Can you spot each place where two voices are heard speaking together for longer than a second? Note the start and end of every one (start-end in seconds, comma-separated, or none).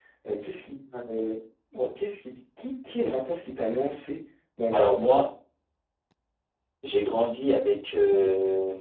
none